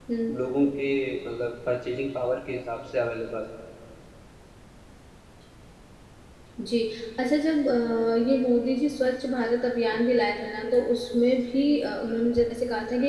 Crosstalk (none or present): none